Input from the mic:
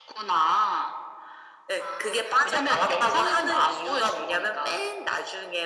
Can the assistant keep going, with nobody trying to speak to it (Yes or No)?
Yes